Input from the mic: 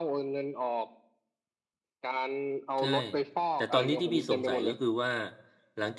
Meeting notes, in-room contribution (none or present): present